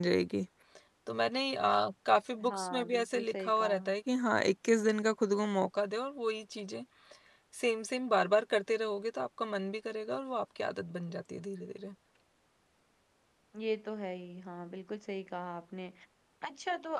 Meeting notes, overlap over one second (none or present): present